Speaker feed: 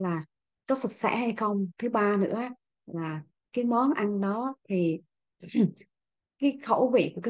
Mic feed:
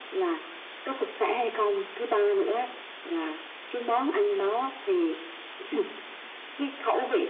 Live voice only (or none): none